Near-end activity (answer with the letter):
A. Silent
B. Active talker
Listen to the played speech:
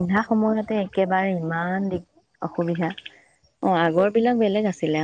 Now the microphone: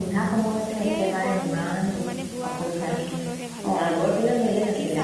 B